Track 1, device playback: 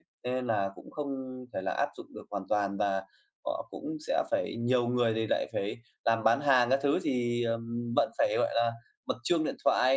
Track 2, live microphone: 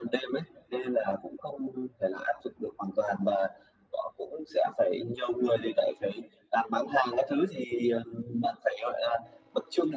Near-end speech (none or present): none